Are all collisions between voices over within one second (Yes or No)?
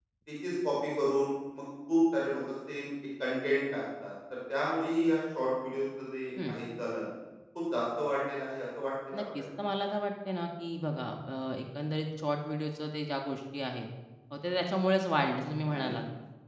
Yes